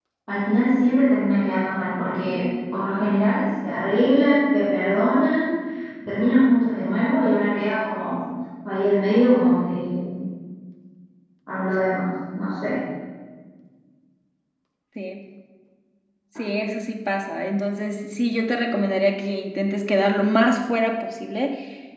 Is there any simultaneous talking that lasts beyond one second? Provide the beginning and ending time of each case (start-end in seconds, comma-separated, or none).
none